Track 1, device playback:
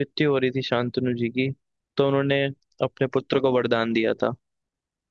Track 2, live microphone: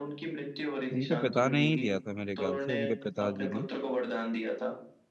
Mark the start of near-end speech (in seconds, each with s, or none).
0.9 s